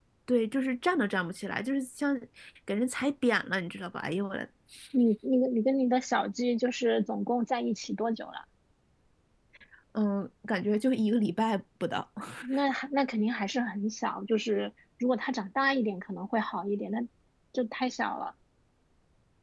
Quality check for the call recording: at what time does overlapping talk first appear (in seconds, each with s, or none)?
none